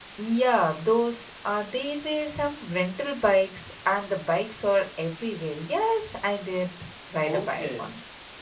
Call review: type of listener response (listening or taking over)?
taking over